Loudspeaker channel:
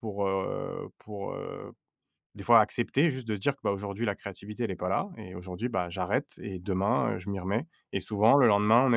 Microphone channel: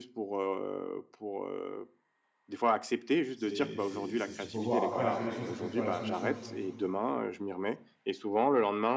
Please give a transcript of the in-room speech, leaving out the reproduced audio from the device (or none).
C'est c'est c'est ce qu'il faut voir. Après la solution, c'est peut-être pas la solution